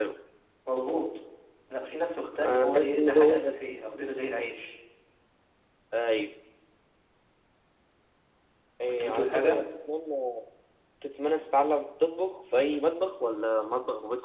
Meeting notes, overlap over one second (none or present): present